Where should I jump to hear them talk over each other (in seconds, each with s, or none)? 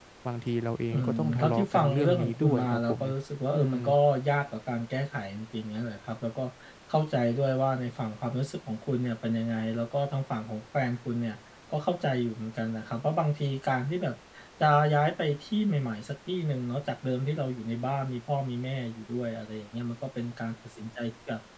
0.9 s